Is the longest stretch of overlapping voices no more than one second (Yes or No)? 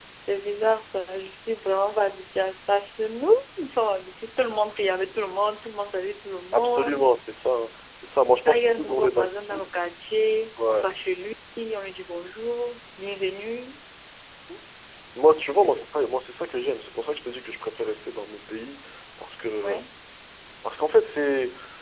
No